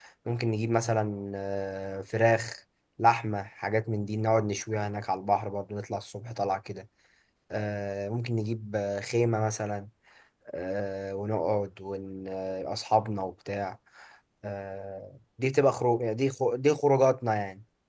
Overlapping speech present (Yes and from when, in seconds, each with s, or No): No